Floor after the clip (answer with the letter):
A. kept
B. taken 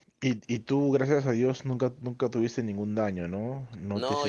B